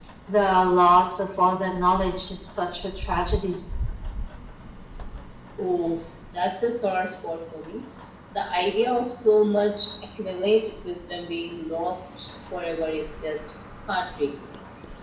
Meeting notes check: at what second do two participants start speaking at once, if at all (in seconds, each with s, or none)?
none